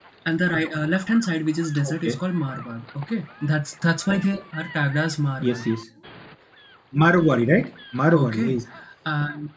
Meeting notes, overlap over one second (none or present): none